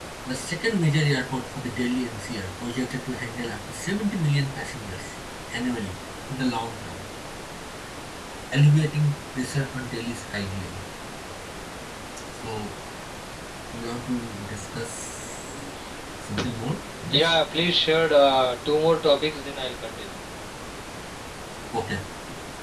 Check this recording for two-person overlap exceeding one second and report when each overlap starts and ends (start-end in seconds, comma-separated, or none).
none